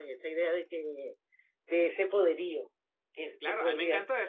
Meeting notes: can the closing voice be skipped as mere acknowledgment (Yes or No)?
No